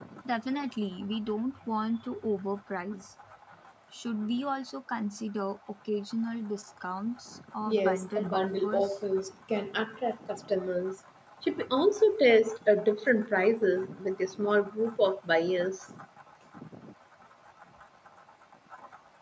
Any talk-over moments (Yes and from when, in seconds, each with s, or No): Yes, from 7.7 s